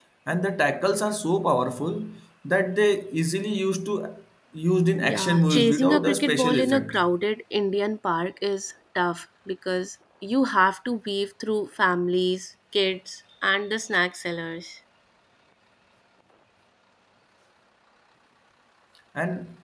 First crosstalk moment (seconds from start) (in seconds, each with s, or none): 5.0 s